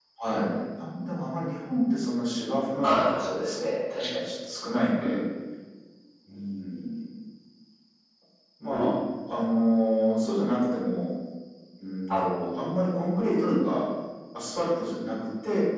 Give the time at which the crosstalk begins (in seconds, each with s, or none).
2.7 s